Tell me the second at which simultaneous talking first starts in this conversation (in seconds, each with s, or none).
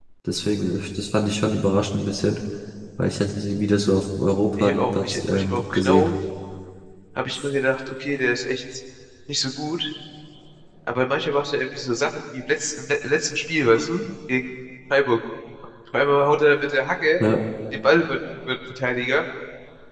4.6 s